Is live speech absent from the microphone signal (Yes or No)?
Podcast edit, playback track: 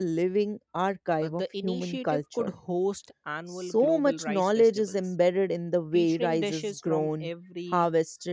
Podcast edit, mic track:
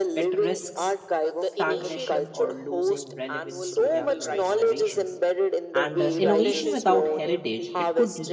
No